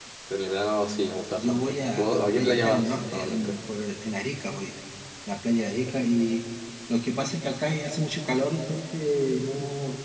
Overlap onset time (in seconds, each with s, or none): 1.3 s